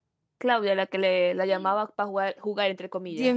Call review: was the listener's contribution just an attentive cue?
No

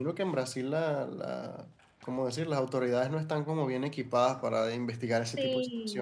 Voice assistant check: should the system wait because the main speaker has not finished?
No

